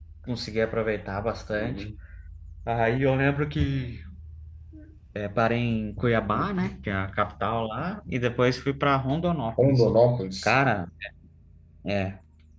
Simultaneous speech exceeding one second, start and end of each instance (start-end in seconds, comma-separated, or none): none